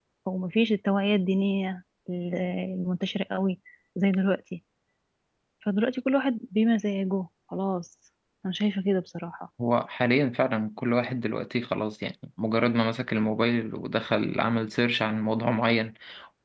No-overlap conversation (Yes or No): Yes